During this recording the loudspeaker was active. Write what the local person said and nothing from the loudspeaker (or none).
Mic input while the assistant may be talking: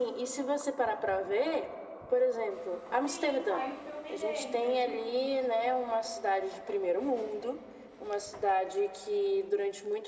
Sim, saiu o filme dele, você viu?